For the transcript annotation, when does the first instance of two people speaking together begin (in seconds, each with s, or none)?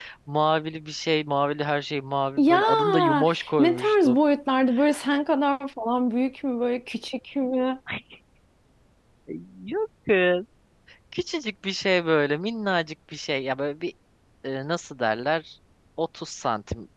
2.4 s